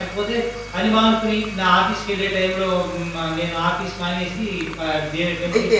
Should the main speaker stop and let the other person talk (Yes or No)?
Yes